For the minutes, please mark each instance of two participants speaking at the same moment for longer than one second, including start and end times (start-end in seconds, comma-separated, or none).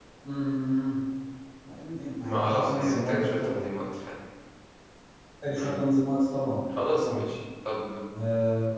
2.2-3.6